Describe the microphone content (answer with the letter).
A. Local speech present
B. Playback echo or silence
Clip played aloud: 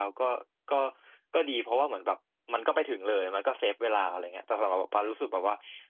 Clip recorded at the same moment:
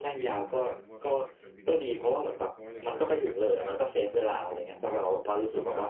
A